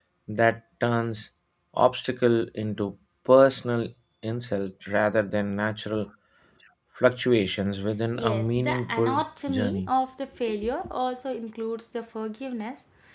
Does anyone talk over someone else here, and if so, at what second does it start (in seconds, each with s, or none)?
8.3 s